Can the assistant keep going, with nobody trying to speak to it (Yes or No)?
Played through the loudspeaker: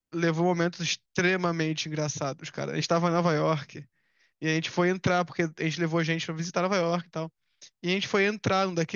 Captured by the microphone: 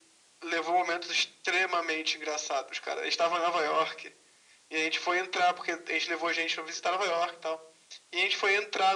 Yes